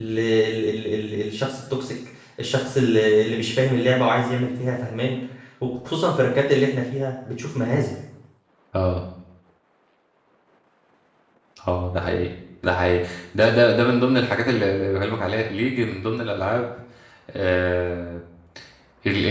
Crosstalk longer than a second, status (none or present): none